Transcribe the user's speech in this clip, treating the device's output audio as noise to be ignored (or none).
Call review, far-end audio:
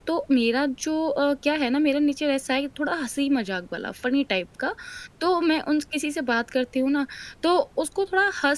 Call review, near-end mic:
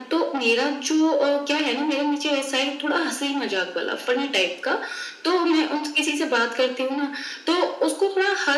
none